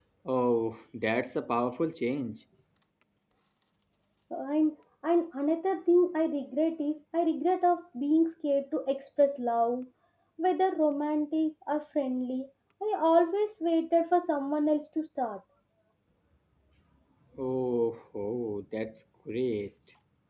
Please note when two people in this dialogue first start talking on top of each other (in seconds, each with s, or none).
none